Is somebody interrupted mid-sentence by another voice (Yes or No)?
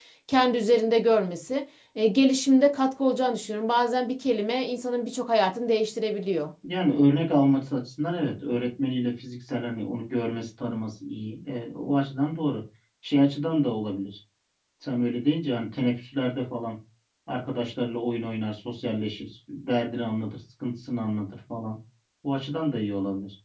No